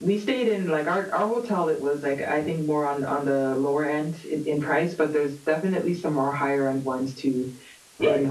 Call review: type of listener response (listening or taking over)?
taking over